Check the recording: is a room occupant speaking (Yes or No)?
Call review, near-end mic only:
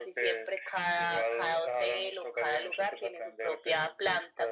No